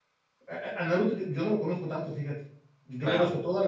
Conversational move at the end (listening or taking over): listening